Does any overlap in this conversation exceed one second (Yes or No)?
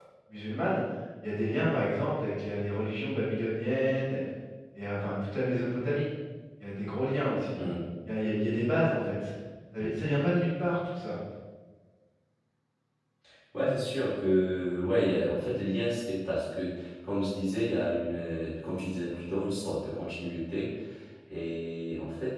No